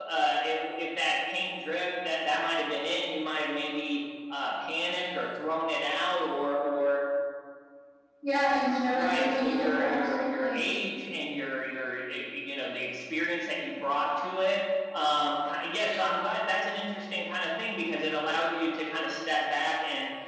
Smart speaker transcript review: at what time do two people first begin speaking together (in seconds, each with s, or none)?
8.9 s